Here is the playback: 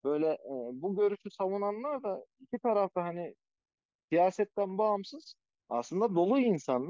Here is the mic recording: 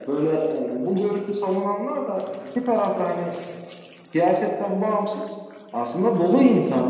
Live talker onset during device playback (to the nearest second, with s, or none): none